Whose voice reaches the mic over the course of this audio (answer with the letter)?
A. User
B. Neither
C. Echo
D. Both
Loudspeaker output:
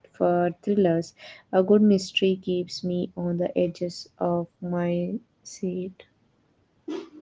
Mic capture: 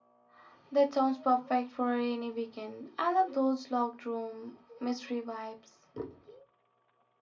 A